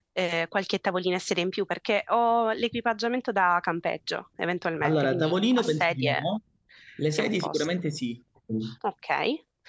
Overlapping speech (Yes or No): Yes